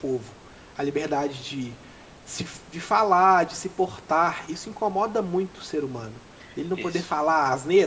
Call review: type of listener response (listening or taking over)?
listening